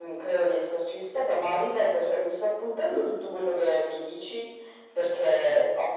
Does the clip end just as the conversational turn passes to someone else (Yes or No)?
No